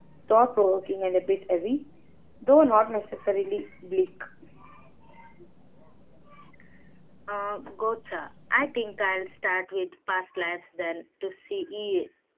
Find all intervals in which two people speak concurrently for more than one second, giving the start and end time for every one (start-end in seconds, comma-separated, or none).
none